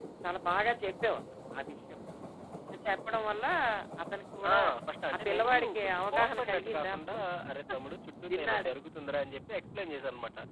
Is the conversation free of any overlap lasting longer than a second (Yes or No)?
No